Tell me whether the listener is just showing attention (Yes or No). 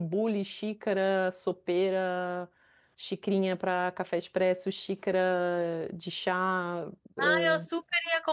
No